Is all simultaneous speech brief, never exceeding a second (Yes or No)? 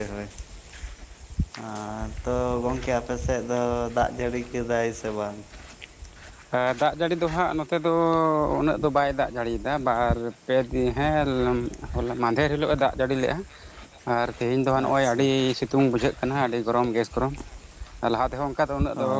Yes